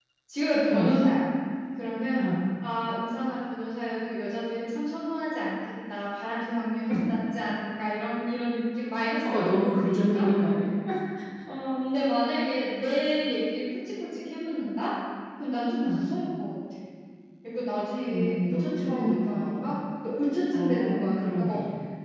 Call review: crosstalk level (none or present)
present